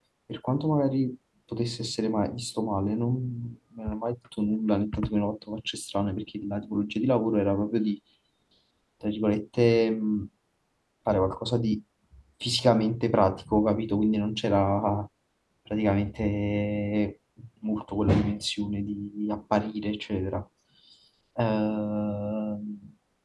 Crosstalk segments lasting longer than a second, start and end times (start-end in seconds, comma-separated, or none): none